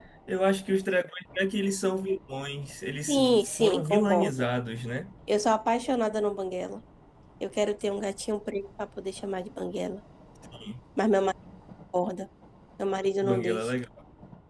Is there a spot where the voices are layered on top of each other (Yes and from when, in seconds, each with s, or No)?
Yes, from 3.1 s